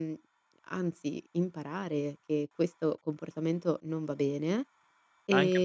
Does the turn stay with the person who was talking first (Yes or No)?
No